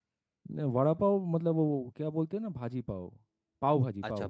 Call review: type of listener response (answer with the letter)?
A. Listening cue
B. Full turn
B